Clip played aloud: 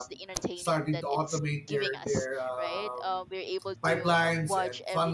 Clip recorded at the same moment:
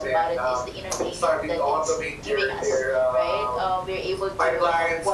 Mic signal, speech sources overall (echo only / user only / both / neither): echo only